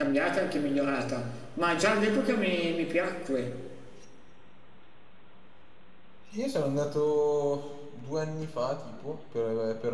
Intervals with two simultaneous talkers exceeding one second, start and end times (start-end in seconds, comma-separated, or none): none